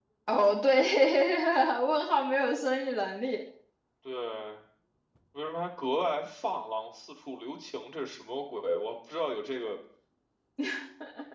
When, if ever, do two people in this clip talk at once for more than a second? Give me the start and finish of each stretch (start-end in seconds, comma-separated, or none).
none